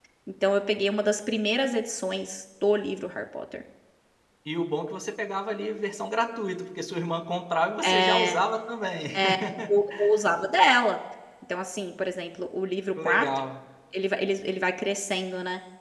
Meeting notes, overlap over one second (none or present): none